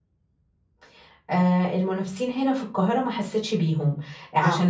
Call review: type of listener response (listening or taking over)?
listening